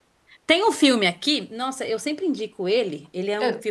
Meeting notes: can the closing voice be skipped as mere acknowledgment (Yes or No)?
Yes